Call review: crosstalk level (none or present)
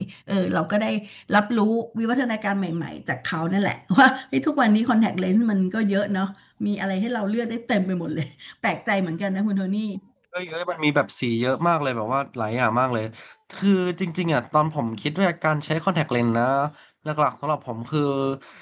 none